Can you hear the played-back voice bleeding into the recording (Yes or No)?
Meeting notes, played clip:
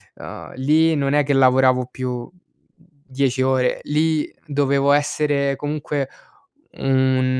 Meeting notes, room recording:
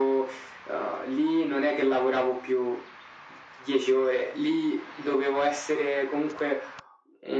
Yes